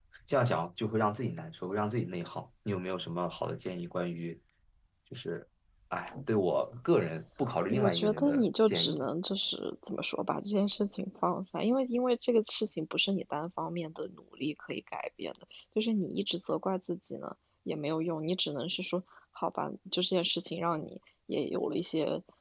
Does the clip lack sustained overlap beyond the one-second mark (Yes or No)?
No